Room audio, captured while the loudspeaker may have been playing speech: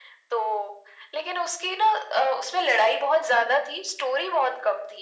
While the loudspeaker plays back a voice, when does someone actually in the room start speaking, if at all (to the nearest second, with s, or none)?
none